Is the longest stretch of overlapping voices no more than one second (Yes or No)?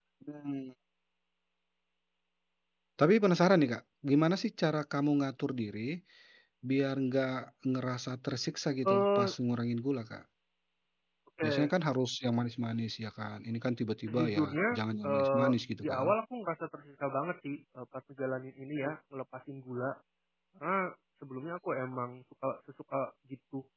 No